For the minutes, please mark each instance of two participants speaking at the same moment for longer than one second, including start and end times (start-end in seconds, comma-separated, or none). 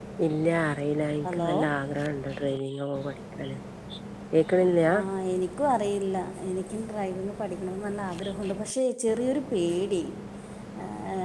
none